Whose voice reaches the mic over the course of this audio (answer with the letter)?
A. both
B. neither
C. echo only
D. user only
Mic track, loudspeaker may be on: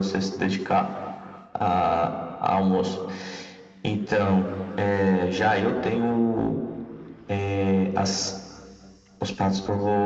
C